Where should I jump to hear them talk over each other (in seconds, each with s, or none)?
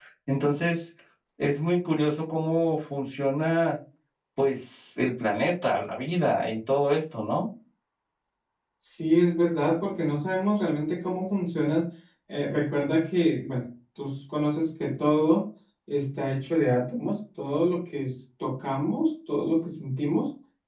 none